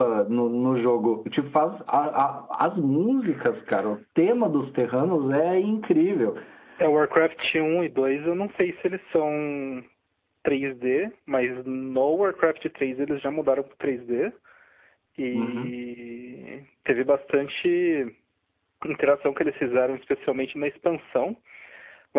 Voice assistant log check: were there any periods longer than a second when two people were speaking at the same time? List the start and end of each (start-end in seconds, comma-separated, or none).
none